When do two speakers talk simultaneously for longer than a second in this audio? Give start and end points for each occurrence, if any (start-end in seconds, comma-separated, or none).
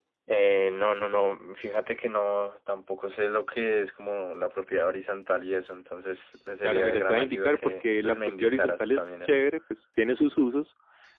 6.6-9.4